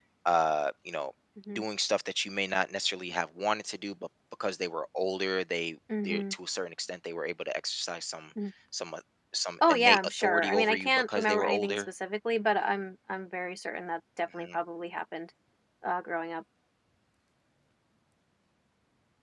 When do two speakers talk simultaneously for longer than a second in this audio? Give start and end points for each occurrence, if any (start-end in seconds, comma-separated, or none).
9.7-11.9